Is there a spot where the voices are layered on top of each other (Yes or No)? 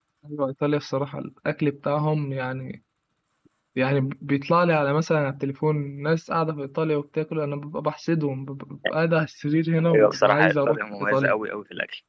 Yes